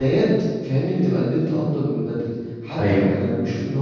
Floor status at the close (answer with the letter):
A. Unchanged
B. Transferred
A